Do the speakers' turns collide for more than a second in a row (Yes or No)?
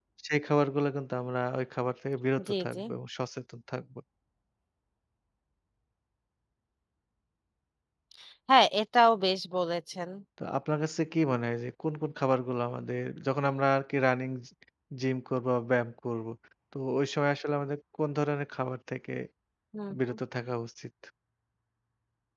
No